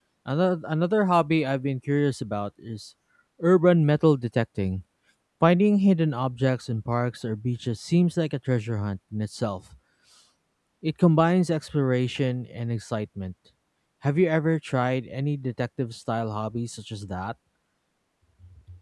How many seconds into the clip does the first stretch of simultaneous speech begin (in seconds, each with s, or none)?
none